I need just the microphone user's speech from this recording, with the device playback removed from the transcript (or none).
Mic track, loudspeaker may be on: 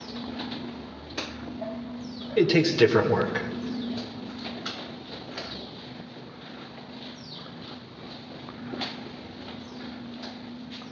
It takes different work.